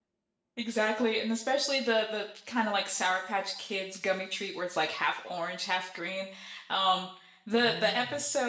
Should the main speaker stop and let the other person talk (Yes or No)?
No